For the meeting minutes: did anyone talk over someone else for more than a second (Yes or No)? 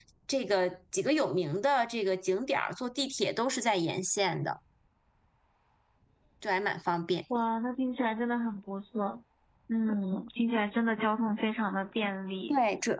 No